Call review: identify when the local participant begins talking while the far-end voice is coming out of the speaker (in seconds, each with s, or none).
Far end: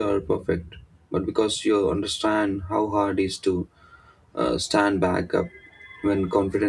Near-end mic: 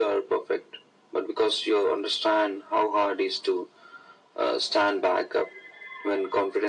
none